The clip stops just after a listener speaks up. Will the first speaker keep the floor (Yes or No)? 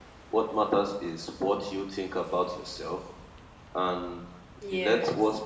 Yes